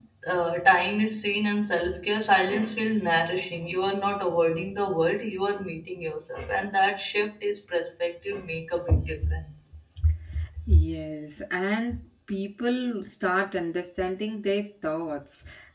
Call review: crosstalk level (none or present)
none